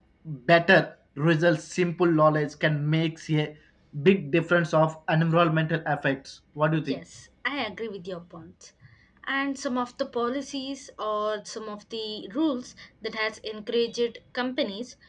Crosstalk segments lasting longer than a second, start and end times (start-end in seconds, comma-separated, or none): none